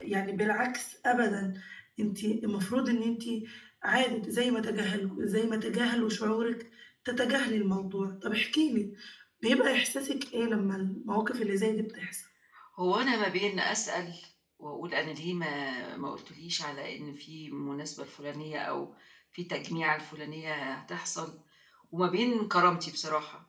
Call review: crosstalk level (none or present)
none